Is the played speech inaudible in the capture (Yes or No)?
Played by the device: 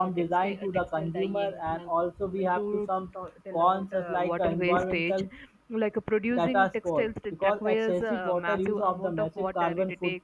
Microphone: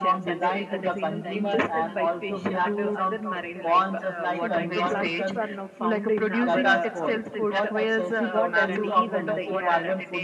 No